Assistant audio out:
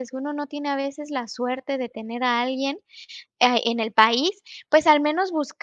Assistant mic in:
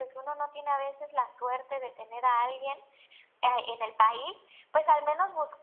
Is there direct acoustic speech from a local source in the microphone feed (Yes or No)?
No